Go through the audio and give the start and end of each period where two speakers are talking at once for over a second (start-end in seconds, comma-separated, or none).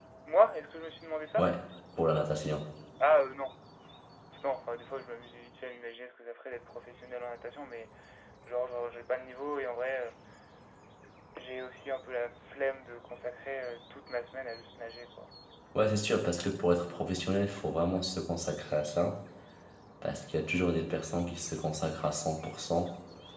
none